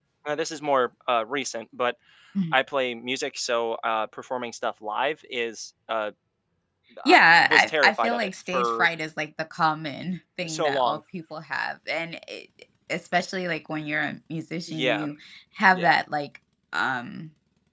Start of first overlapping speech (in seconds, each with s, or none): 7.0 s